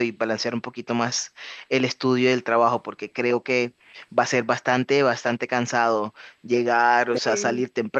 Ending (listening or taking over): listening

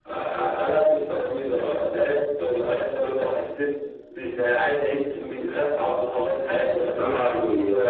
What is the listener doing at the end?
taking over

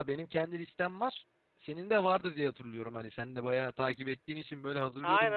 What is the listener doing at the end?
taking over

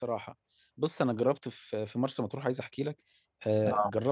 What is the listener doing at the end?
listening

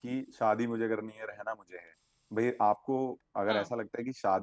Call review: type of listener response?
listening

